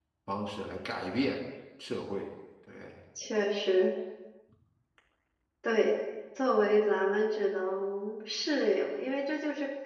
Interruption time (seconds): none

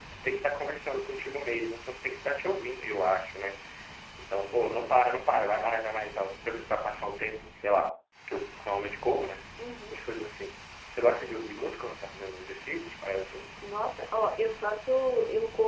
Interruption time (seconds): none

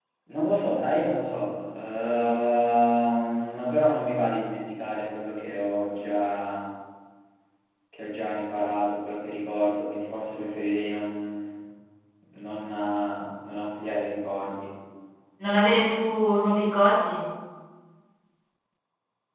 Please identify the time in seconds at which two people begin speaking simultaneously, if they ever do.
none

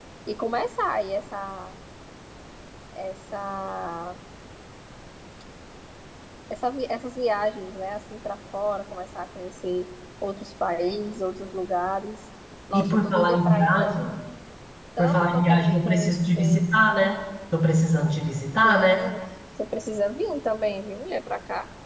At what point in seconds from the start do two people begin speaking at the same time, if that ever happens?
13 s

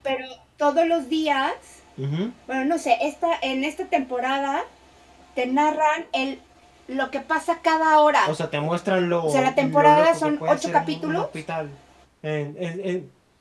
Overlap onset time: 9 s

